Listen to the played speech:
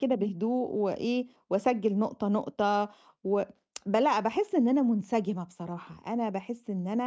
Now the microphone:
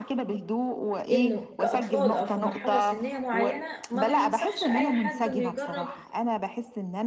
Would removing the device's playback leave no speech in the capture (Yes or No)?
No